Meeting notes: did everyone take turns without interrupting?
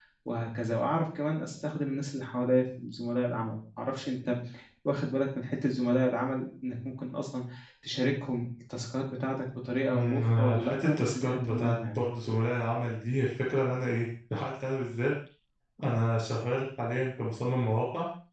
No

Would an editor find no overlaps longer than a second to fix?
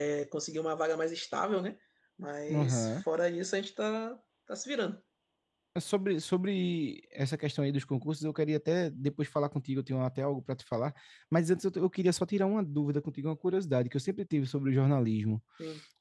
Yes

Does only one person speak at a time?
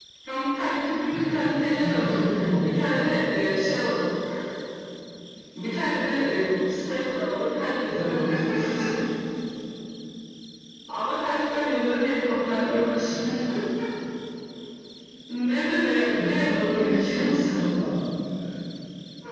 No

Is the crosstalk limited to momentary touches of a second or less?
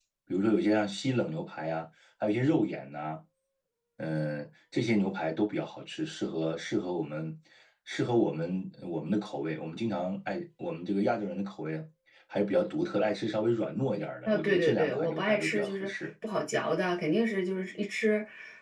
No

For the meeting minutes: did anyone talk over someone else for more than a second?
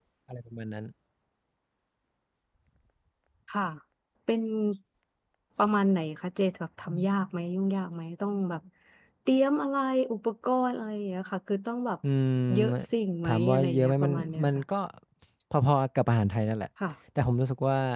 Yes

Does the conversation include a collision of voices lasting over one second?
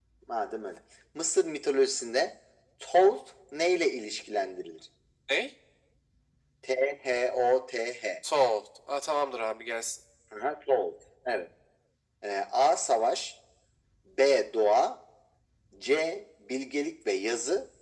No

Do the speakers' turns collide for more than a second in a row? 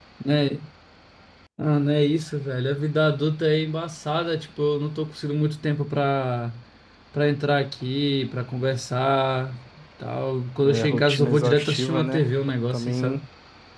Yes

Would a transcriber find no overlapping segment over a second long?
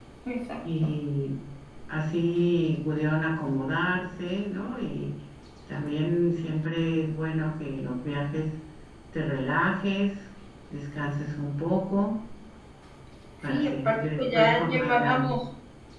No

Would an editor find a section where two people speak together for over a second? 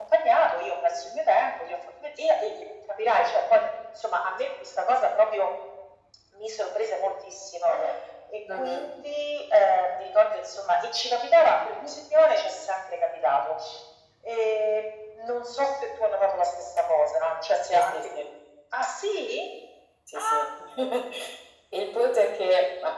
No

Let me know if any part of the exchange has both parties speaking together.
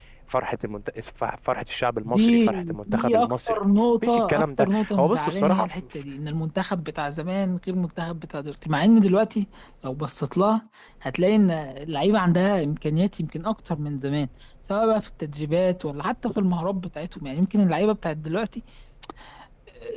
Yes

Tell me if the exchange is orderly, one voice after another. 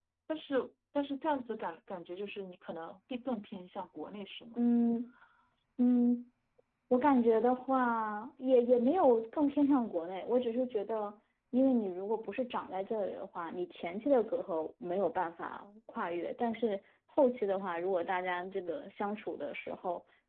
Yes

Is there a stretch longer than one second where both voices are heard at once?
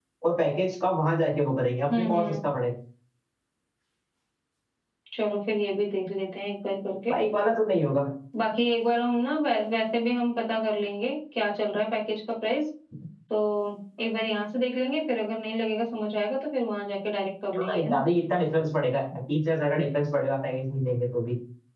No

